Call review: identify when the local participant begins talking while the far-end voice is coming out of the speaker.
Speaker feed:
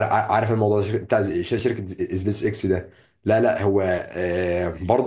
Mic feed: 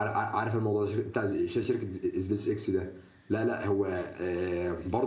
none

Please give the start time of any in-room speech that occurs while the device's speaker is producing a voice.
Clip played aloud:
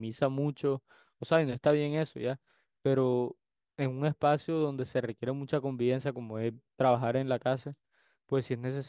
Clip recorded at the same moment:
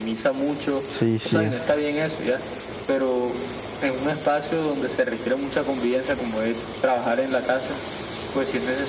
1 s

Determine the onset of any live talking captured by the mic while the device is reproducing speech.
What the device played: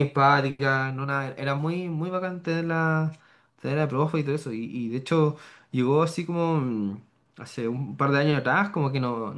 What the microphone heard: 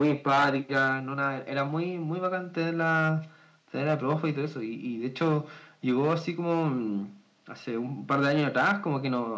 none

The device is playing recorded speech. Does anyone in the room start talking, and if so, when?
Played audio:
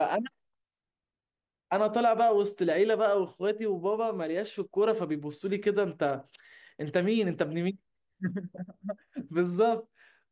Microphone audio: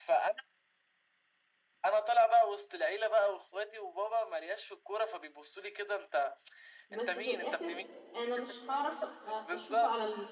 7 s

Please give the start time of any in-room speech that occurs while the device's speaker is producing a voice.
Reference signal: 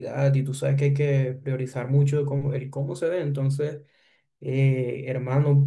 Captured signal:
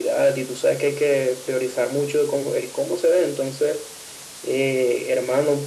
none

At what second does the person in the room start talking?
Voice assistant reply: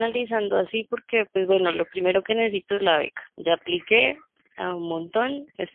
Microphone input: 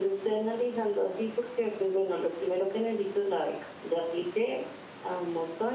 none

